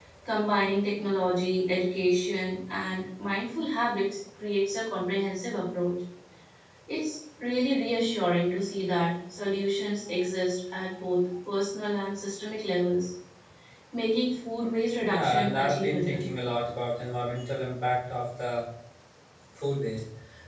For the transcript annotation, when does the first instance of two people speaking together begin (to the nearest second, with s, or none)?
15 s